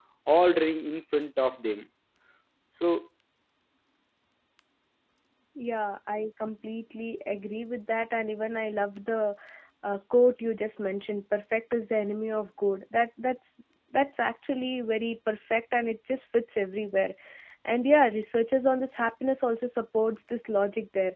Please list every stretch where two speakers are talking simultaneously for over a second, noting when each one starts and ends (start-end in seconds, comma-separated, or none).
none